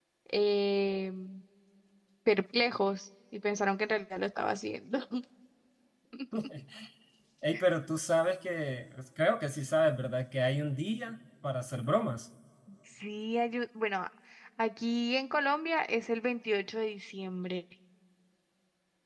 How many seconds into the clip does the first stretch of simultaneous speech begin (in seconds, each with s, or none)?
none